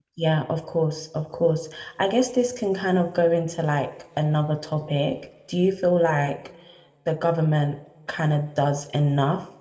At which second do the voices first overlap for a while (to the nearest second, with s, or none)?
none